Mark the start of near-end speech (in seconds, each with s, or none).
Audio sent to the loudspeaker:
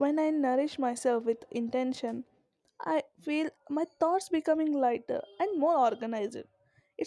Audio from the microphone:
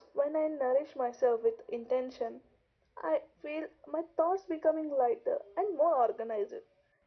none